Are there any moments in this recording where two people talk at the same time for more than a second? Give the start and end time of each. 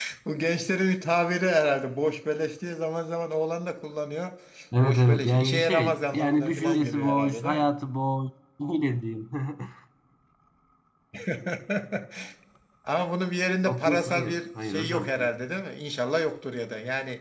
4.8-7.7, 13.6-15.1

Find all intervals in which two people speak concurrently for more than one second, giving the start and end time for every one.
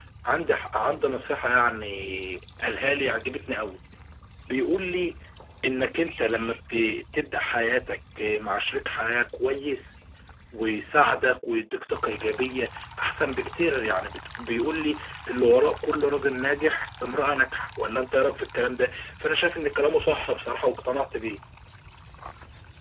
none

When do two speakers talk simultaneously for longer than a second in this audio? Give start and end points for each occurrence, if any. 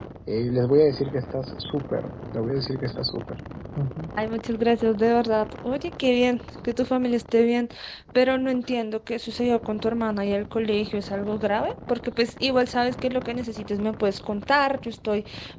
none

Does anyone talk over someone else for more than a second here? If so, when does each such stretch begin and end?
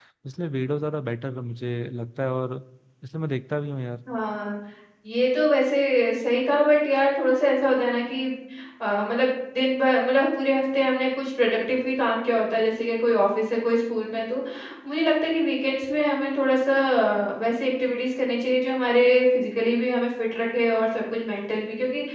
none

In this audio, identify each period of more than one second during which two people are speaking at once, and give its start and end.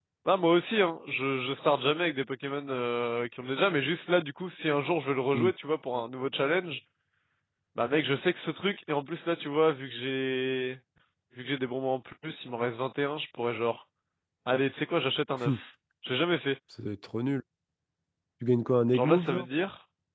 none

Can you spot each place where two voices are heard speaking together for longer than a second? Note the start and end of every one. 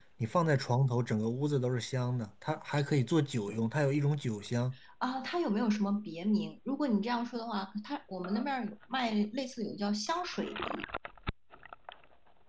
none

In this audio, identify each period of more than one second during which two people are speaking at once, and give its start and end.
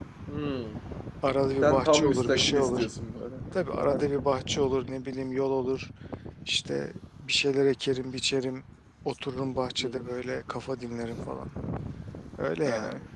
1.6-2.9

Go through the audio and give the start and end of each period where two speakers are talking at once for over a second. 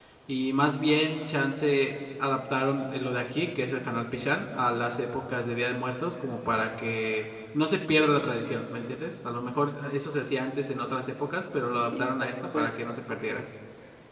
12.0-13.4

